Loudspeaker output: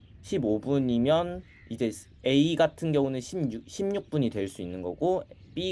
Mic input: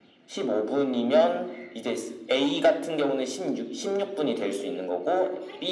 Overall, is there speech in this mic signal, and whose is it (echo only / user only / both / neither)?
both